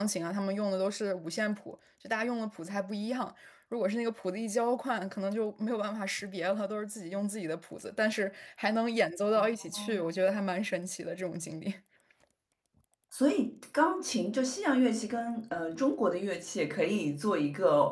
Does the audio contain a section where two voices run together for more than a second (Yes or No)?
No